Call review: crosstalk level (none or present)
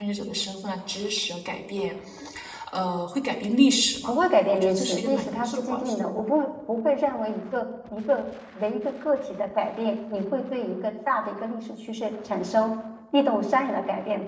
present